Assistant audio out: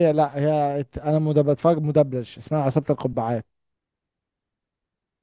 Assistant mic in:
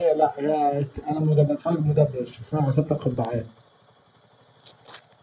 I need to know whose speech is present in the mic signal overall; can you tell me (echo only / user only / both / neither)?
echo only